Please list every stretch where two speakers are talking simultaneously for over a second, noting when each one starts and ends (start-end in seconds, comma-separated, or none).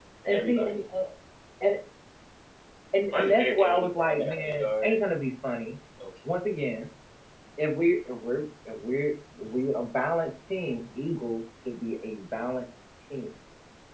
3.1-5.0